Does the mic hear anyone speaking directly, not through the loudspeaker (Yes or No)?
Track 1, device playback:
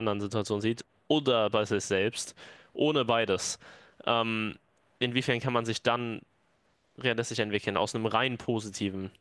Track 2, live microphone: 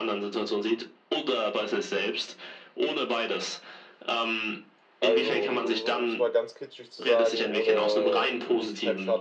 Yes